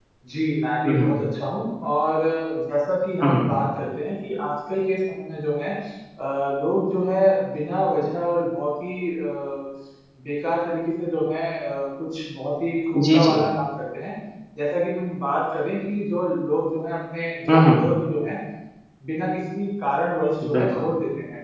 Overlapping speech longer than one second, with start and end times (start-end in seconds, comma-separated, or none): none